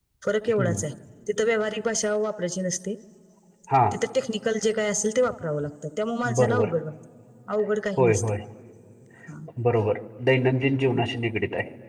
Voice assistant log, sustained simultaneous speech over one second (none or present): none